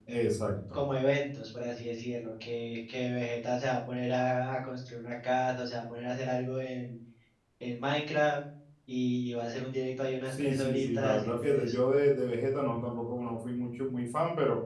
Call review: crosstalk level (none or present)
present